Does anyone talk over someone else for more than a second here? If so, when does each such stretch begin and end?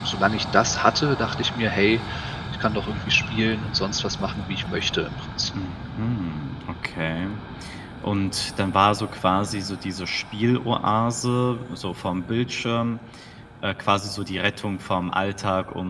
none

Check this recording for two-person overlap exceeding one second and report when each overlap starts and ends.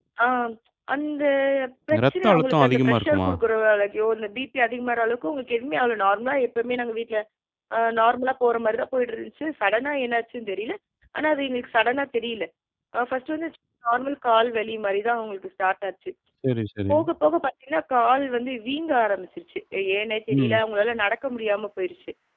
2.0-3.3

